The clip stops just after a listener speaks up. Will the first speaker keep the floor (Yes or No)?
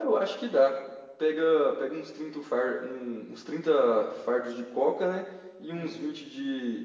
Yes